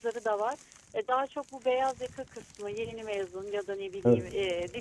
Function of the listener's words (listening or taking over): listening